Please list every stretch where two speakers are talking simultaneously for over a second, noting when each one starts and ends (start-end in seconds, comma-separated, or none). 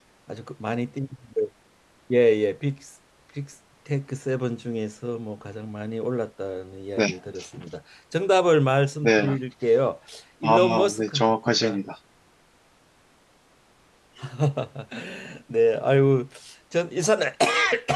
10.4-11.8